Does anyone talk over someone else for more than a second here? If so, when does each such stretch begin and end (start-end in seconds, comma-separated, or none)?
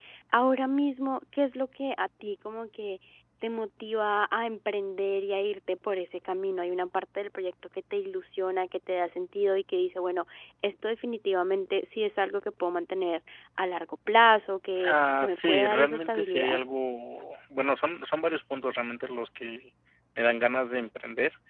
14.8-16.6